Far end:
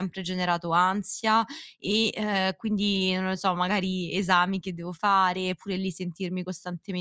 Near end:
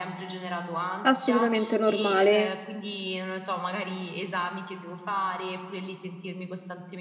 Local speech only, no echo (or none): Assolutamente normale,